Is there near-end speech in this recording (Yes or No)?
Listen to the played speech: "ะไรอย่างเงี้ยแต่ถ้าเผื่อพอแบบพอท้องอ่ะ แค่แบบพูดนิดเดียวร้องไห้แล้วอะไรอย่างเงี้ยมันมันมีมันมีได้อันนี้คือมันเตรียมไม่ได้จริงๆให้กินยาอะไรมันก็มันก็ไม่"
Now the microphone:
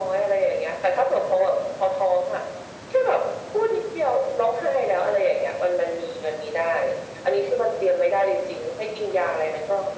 No